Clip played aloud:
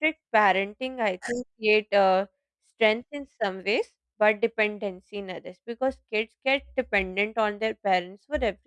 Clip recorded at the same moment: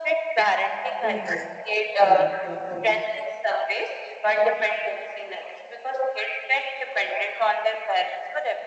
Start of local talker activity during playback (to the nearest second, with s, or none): 1 s